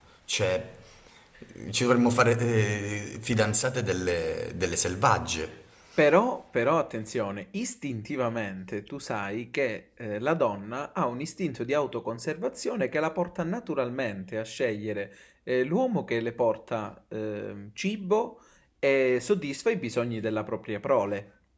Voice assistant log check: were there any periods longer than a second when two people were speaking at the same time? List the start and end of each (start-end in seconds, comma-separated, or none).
none